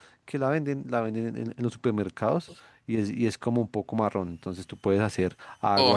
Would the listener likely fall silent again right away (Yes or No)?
No